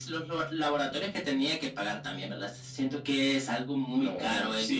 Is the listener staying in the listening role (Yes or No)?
No